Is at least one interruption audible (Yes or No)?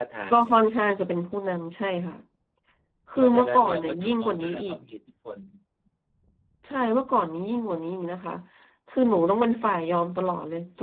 Yes